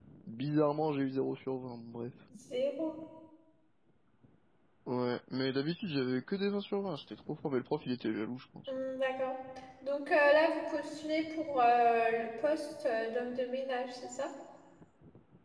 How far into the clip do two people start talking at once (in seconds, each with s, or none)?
none